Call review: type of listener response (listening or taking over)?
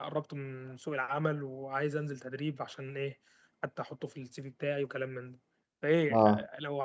listening